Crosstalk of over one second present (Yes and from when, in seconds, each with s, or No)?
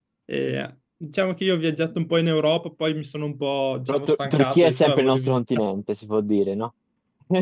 Yes, from 3.9 s